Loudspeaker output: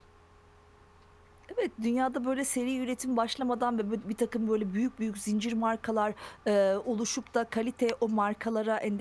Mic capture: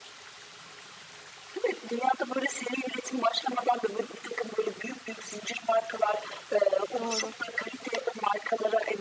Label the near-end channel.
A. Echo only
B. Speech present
B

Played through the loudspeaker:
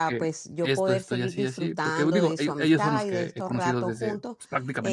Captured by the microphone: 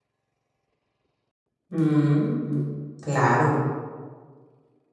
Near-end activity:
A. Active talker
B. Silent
A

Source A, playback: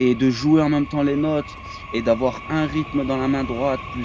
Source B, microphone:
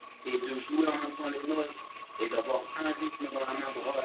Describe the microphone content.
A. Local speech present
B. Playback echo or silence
B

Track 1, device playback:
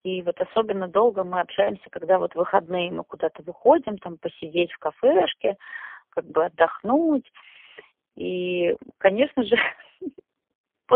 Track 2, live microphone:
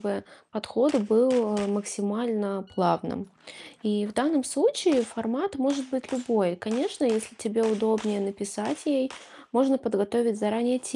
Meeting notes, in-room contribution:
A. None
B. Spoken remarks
B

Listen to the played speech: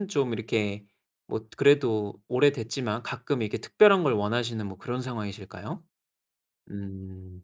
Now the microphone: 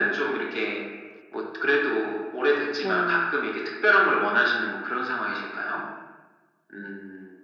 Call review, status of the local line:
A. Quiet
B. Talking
B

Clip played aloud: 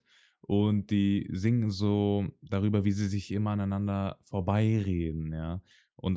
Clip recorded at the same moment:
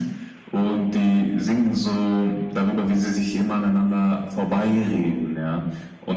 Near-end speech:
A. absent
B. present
A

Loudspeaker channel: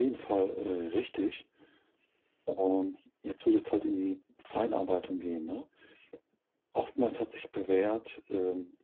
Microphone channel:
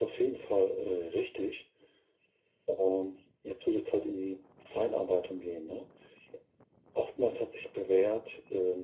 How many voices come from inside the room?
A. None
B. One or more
A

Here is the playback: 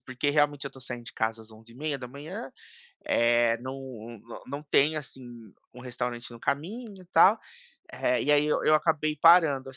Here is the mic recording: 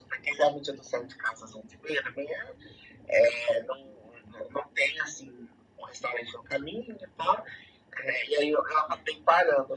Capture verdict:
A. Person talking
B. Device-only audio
B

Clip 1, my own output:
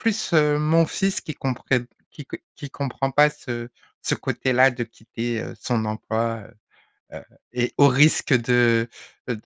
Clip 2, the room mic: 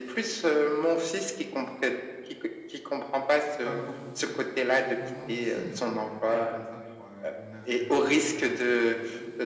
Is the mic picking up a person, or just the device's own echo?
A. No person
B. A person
B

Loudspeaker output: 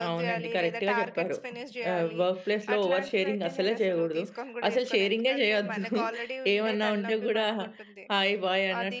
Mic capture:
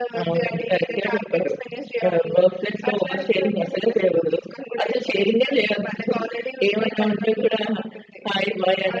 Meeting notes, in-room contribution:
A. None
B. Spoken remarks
A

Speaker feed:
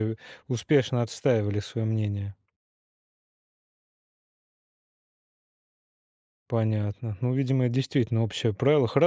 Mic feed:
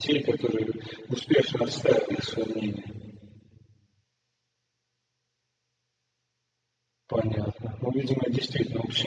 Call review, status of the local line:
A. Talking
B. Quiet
B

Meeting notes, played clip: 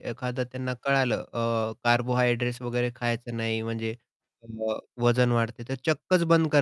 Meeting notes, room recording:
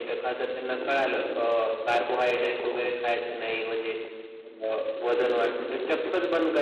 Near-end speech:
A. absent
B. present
A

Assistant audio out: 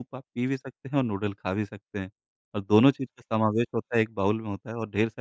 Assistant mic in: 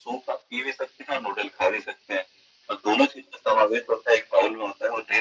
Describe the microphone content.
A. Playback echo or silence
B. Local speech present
A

